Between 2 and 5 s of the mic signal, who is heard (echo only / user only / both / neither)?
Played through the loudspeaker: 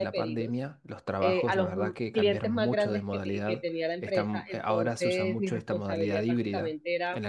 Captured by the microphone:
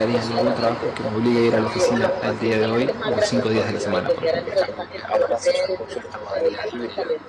both